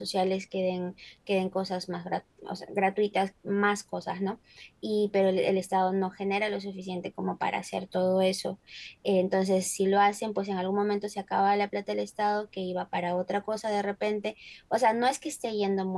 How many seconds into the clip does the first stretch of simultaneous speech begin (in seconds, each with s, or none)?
none